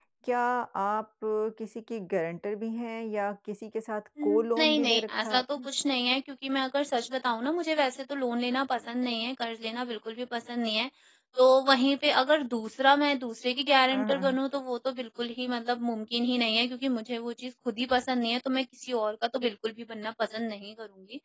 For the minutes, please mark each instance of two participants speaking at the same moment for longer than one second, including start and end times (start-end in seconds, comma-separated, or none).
4.2-5.7